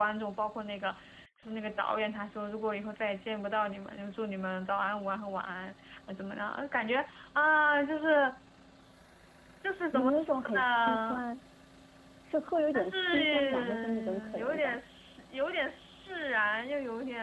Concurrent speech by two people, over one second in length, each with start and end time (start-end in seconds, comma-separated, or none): 9.9-11.2, 12.7-14.8